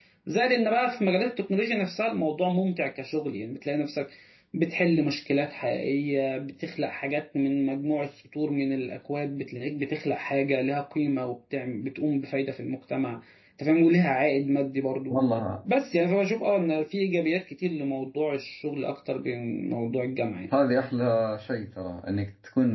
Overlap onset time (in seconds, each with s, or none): none